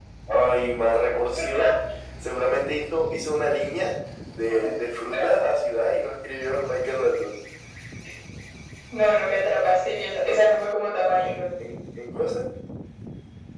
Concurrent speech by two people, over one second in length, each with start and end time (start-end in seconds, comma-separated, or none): none